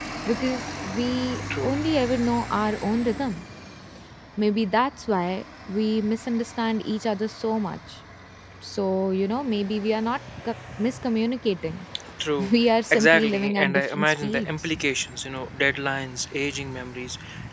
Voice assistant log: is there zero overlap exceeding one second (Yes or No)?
No